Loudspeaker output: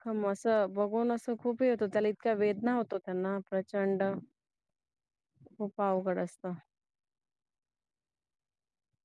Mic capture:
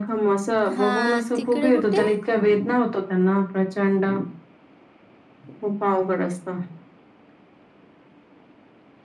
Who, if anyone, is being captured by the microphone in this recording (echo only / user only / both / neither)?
both